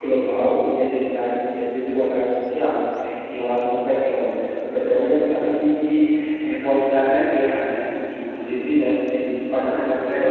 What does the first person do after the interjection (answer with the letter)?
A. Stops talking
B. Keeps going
A